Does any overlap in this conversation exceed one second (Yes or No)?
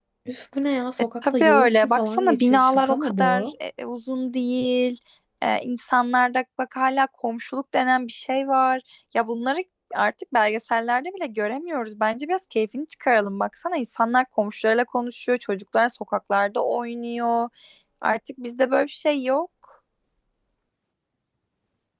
Yes